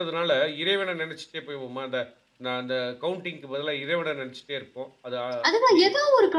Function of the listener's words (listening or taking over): taking over